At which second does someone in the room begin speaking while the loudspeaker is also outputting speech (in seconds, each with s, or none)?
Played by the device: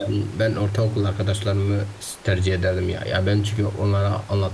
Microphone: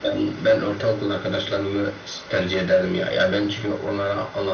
none